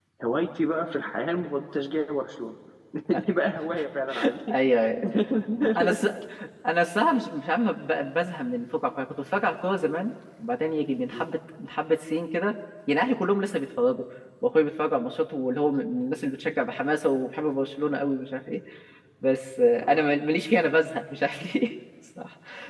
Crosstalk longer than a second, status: none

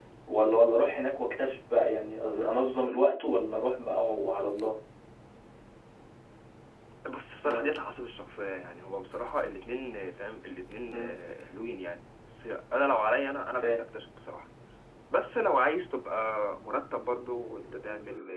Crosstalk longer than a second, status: none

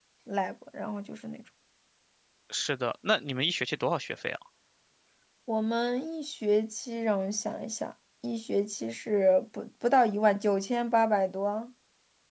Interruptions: none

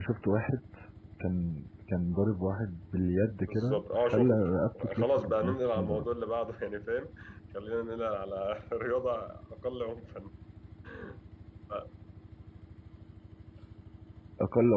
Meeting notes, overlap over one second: present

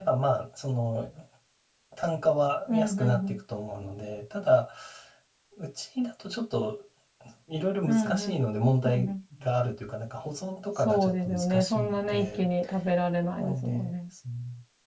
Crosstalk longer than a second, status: present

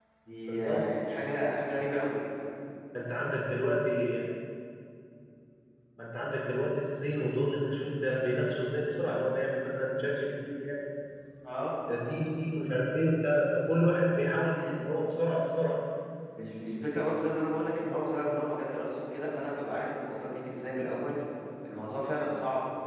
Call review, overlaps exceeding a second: none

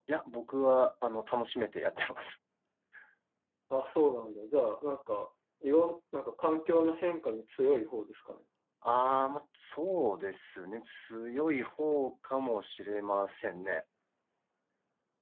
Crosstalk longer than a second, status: none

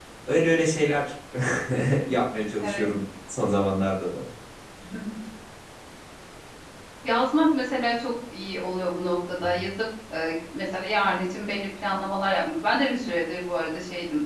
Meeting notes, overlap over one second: none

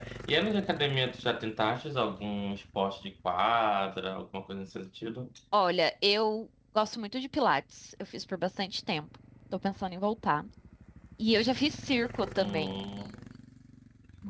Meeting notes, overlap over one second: none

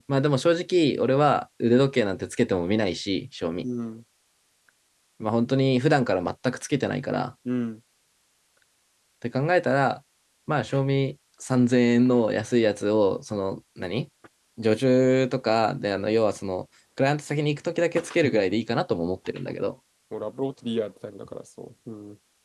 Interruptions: none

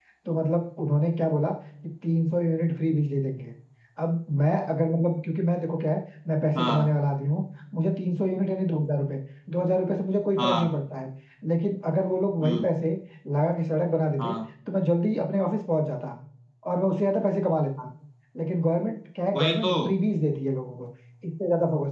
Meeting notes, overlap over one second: none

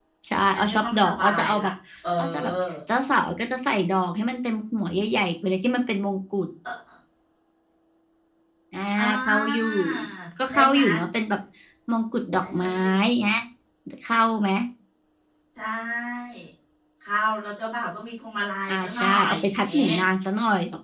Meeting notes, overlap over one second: present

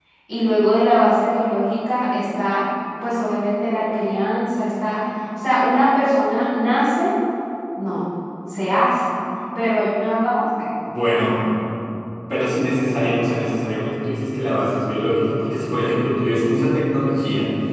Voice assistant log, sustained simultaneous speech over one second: none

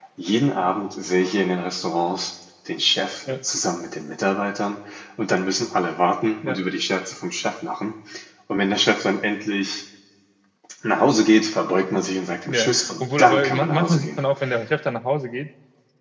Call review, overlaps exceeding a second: present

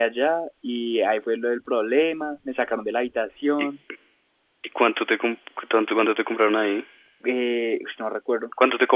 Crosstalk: none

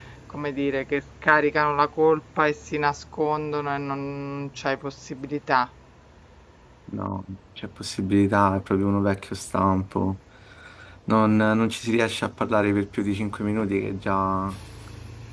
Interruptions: none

